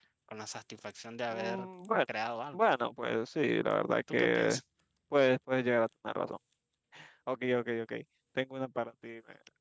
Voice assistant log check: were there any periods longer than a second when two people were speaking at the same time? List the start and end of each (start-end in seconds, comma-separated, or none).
none